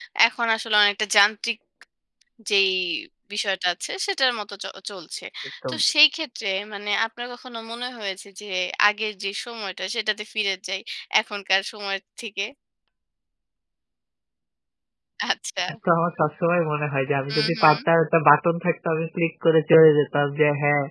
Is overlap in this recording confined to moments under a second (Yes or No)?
Yes